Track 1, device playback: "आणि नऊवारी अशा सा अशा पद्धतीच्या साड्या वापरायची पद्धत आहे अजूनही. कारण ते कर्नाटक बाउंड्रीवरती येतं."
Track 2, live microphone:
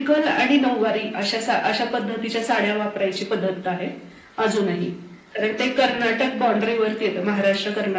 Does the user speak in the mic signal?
No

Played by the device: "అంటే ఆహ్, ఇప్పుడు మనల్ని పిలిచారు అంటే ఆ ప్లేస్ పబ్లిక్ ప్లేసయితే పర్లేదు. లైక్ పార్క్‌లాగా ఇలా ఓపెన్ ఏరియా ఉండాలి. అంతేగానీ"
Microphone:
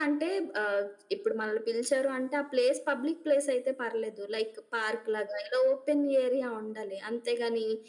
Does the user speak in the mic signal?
No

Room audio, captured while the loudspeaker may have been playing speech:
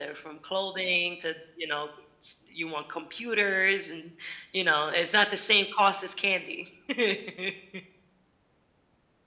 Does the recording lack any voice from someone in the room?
Yes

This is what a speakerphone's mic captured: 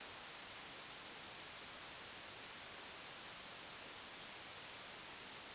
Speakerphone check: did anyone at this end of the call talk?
No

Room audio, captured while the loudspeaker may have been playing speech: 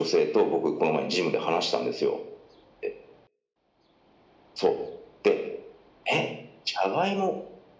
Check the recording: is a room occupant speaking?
No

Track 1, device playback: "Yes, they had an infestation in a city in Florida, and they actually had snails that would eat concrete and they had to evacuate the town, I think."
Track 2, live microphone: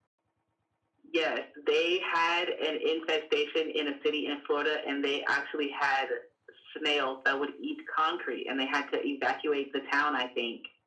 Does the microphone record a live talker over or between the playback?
No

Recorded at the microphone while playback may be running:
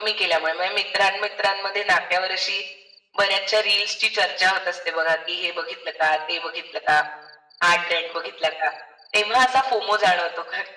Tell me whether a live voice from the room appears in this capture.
No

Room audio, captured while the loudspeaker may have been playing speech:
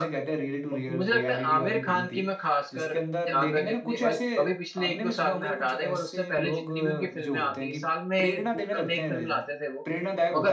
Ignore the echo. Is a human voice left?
Yes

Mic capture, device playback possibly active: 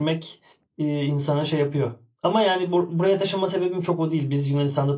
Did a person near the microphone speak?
Yes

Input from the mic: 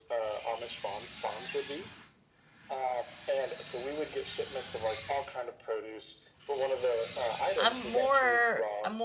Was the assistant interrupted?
Yes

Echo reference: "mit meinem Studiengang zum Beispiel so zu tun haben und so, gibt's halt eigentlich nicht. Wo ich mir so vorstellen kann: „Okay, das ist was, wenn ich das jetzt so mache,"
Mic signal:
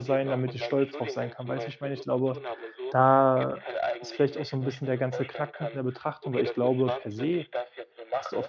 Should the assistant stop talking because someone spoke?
Yes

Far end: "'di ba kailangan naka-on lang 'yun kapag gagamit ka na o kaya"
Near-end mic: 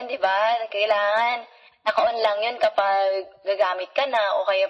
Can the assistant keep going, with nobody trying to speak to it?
Yes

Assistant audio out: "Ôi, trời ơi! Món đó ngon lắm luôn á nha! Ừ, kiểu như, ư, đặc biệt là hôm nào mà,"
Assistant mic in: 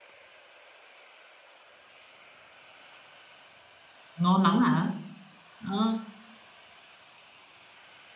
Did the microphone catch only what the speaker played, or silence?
No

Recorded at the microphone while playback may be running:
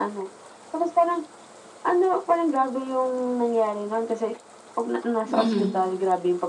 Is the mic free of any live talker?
No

